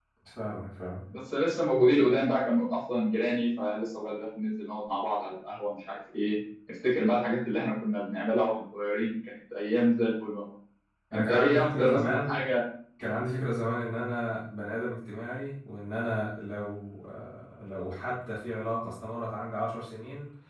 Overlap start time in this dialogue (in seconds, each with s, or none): 11.1 s